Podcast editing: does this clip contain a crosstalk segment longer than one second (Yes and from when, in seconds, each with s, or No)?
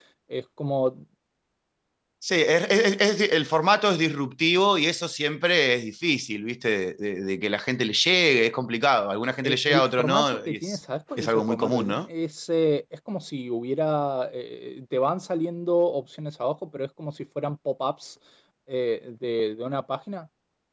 Yes, from 9.4 s